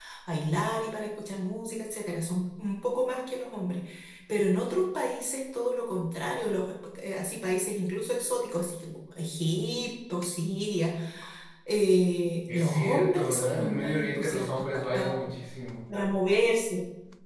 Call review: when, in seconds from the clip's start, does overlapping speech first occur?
13 s

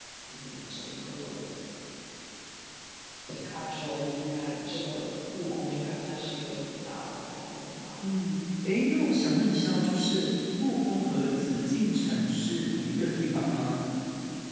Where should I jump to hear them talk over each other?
none

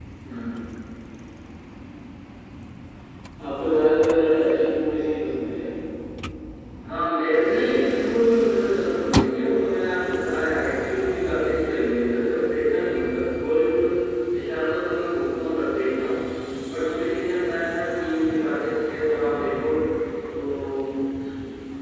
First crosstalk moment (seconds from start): none

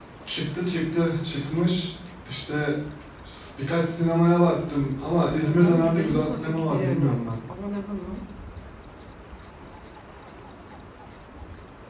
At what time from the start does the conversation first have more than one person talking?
5 s

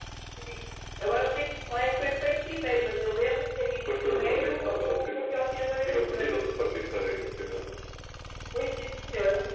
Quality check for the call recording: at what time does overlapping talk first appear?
4 s

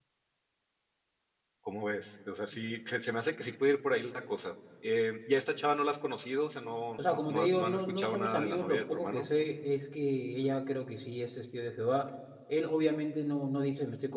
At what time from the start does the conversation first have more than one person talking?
7 s

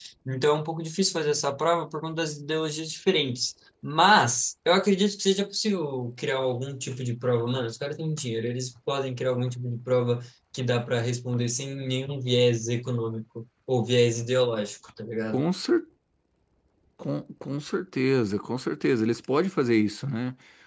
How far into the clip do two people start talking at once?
none

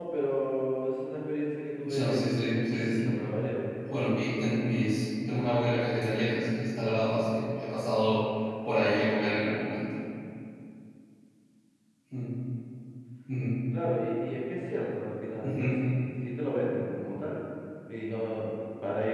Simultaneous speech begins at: 2 s

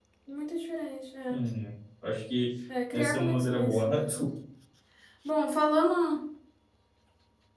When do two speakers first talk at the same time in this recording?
3 s

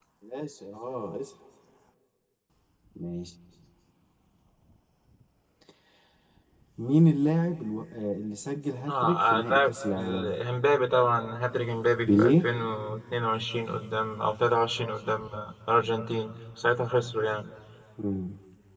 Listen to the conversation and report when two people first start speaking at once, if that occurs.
9 s

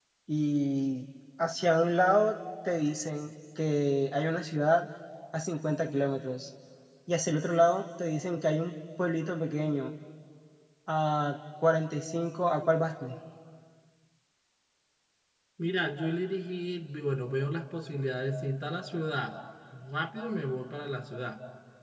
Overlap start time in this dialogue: none

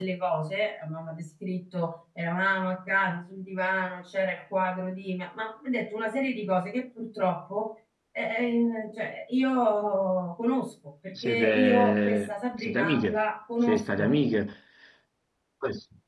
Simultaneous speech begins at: 11 s

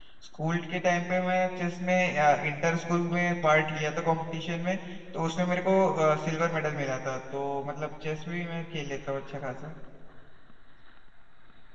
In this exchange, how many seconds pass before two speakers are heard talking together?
none

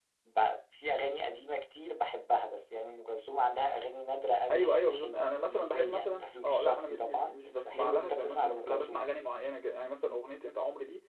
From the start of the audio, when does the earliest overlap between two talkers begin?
4 s

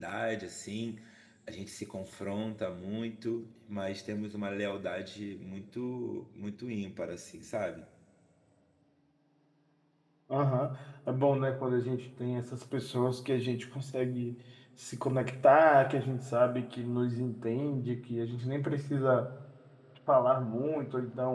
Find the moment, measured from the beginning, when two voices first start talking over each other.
none

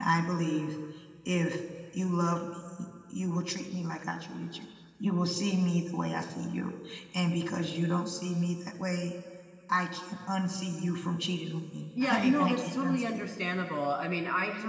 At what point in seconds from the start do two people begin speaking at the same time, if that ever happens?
12 s

